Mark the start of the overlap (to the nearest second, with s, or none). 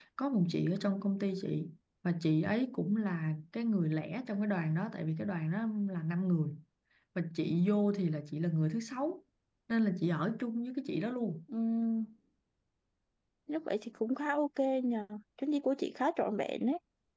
none